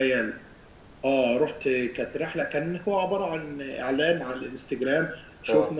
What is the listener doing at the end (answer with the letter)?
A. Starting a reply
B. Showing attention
B